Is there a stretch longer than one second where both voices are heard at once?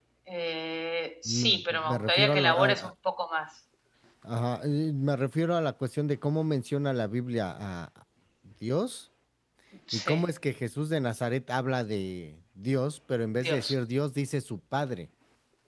Yes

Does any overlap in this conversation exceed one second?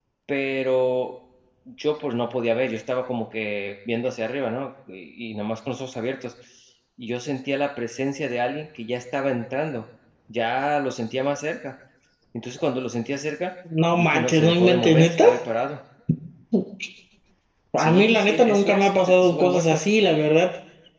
Yes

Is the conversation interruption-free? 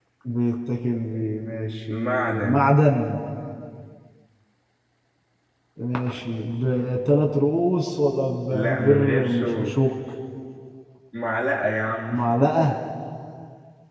No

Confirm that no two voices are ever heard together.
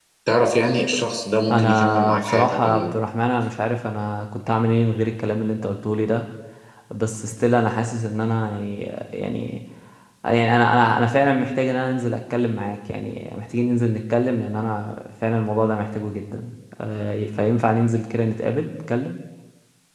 No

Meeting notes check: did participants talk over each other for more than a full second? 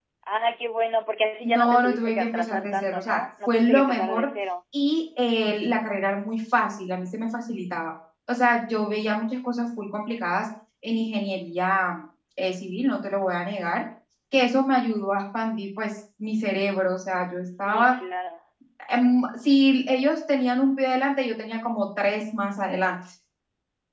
Yes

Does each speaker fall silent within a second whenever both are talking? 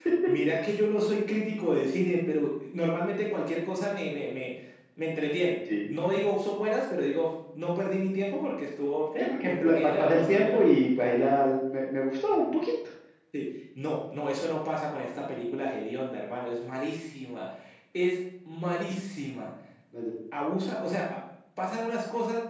No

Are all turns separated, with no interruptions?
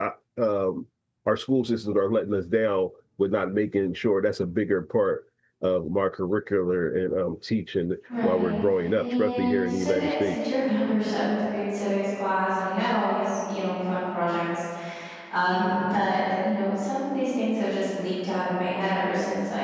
No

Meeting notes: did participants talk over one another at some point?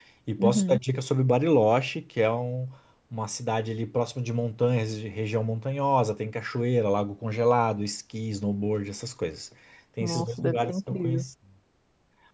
Yes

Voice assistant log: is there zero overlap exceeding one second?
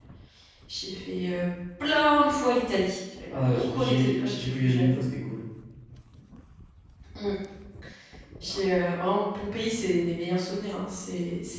No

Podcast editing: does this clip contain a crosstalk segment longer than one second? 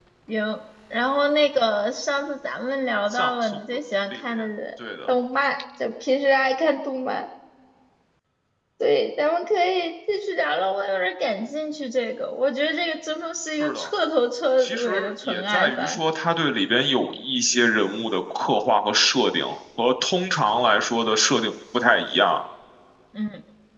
Yes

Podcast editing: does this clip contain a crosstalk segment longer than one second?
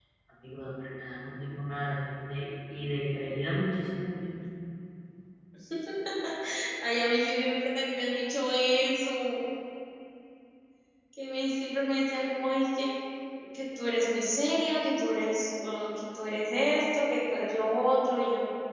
No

